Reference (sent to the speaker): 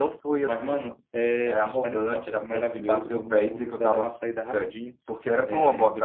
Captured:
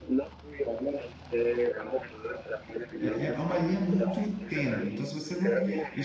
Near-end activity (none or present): present